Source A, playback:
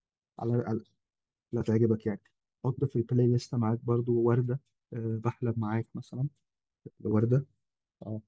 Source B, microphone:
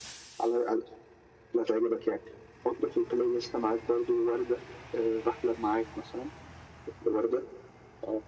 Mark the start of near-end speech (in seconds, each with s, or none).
none